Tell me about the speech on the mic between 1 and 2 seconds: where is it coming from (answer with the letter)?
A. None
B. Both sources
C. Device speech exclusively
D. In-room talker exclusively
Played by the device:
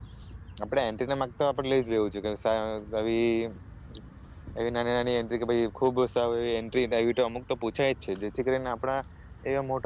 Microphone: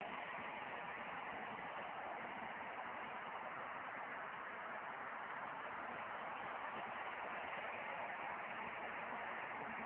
A